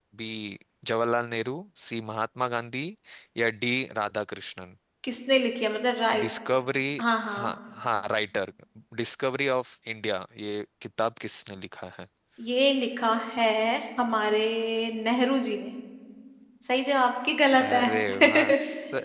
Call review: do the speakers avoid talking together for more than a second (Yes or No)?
Yes